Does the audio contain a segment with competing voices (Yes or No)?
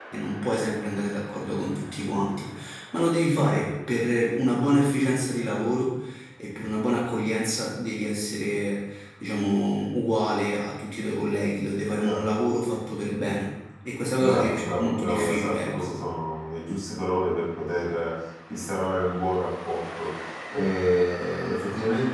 Yes